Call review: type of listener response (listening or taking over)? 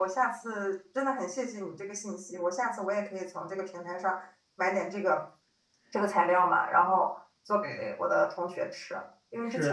listening